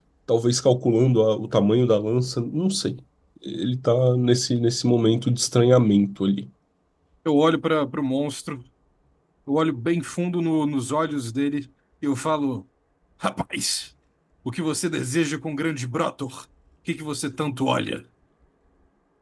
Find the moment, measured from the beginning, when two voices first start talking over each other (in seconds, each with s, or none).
none